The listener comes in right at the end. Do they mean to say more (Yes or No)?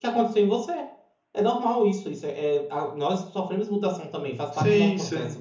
Yes